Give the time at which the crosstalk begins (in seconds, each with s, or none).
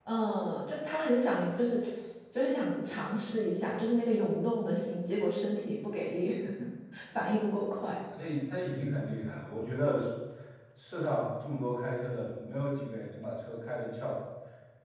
none